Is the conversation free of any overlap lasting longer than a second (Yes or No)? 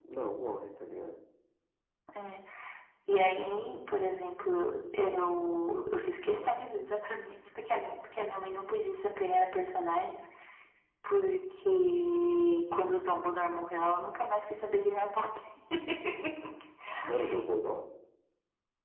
Yes